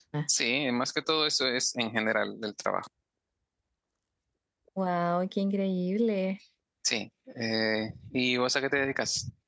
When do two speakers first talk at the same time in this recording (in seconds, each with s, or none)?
none